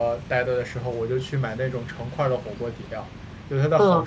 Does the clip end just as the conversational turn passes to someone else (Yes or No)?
No